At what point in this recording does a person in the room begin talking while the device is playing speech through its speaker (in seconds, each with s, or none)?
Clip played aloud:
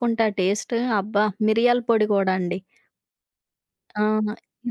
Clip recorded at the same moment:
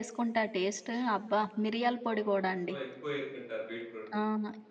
2.1 s